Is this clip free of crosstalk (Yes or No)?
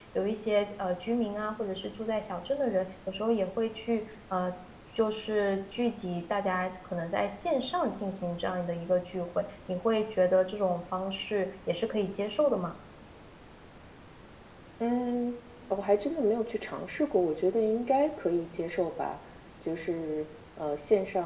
Yes